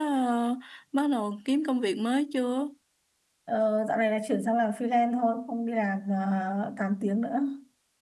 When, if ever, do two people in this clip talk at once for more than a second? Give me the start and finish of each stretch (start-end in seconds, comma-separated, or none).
none